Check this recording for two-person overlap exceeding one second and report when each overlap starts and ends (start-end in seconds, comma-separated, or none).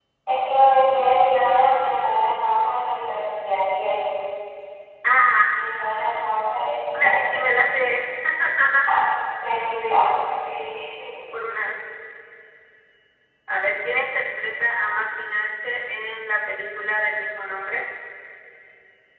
none